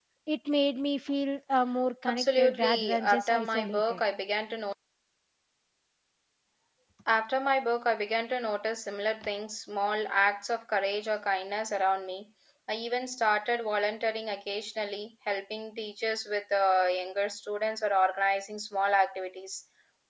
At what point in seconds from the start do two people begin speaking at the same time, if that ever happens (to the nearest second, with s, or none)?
2 s